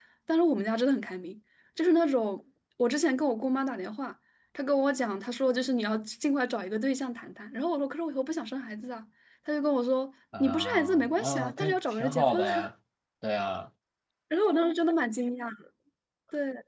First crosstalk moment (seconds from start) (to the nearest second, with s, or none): 10 s